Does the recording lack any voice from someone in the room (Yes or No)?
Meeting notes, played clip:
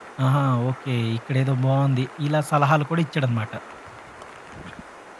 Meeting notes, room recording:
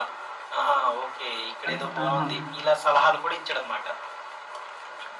No